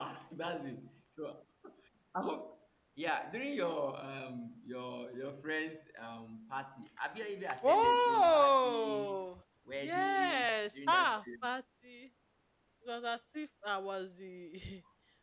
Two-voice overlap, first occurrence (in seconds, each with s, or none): 7.6 s